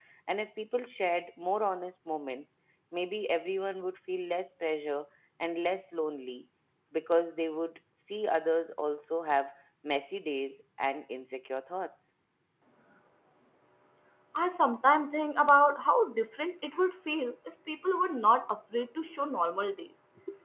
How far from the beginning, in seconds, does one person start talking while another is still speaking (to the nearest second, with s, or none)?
none